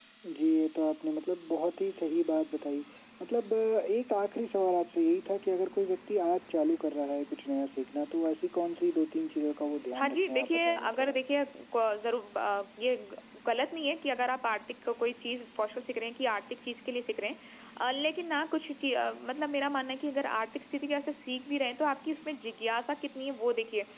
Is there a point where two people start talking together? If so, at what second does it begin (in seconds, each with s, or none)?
9.9 s